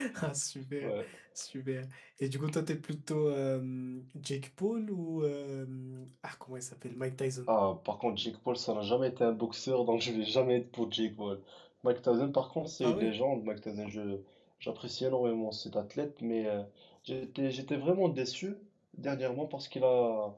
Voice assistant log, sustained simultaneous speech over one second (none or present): none